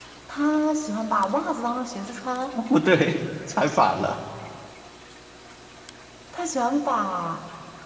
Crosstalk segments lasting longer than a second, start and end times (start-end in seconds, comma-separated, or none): none